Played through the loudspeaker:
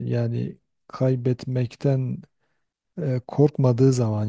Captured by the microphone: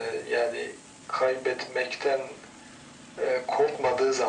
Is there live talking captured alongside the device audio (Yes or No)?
No